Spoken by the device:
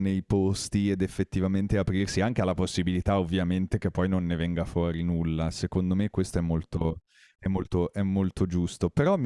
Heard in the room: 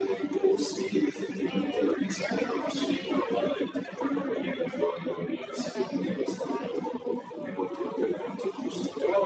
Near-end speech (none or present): present